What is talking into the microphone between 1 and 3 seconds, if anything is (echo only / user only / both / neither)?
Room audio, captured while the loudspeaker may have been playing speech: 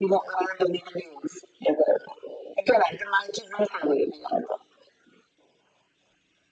echo only